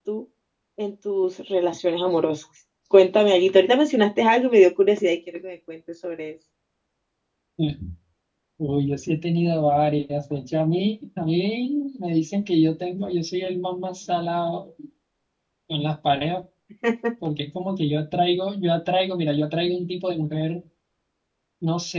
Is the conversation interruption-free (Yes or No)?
Yes